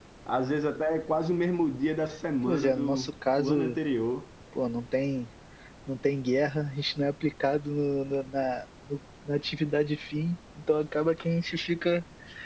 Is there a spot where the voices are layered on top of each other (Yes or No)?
Yes